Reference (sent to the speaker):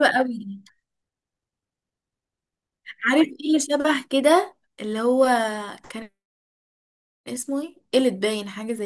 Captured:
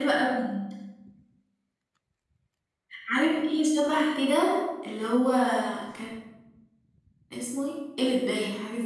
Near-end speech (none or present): none